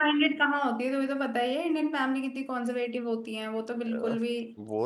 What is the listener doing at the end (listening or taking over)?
taking over